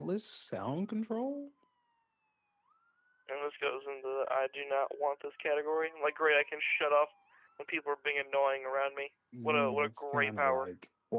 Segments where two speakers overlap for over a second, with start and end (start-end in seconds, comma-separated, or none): 9.4-10.7